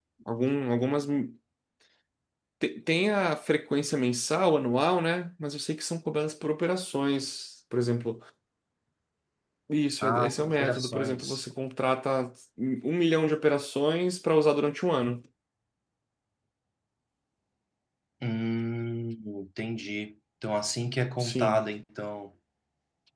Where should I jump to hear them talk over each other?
10.0 s

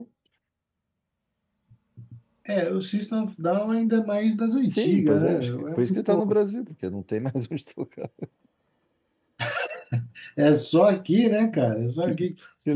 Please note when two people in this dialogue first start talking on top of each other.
4.7 s

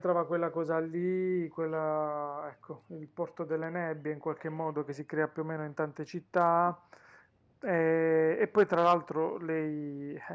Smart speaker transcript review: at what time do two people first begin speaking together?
none

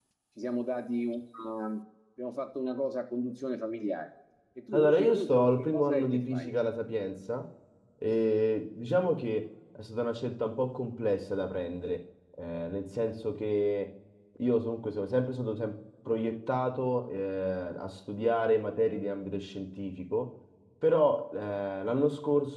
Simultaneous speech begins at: 4.7 s

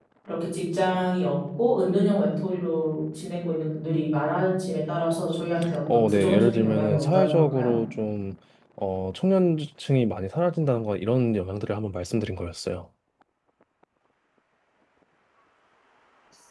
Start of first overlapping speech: 5.9 s

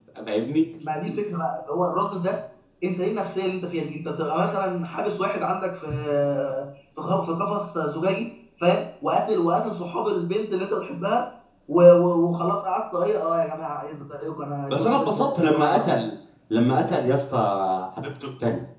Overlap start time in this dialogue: 14.7 s

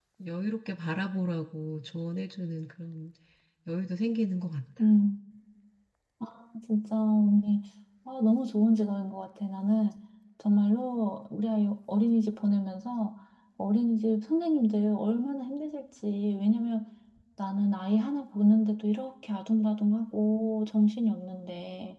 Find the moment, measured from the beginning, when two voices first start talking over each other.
none

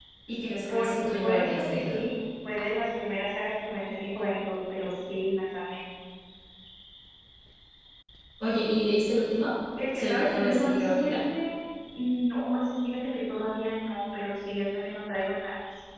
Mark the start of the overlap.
0.7 s

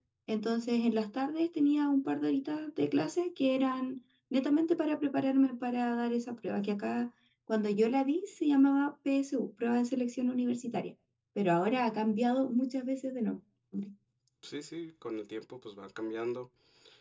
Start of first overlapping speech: none

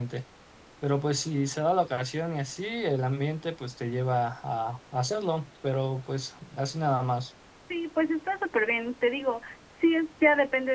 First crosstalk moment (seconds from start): none

